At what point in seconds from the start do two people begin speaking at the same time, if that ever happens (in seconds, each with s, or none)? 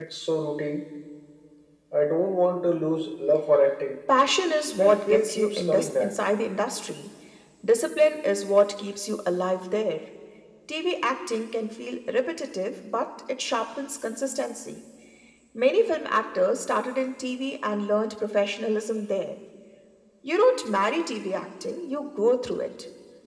4.8 s